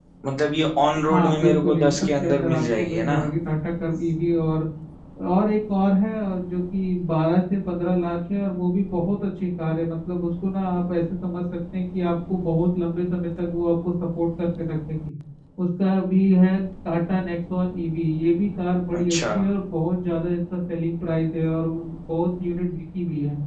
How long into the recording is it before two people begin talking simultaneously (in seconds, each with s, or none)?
1.1 s